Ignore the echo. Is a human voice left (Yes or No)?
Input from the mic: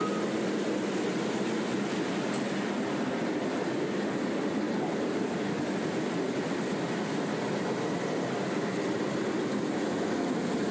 No